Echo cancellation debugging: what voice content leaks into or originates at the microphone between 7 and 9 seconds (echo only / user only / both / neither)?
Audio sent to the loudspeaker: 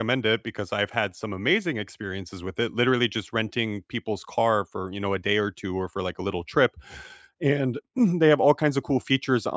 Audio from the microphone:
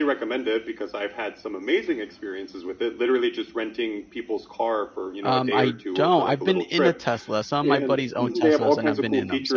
both